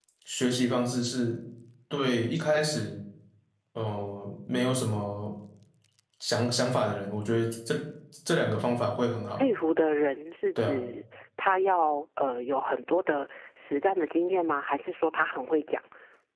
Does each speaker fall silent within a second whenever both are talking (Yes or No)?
Yes